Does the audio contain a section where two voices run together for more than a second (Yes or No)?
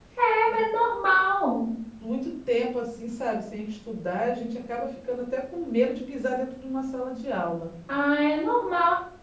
No